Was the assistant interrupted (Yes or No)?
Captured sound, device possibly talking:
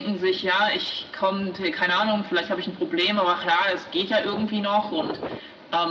No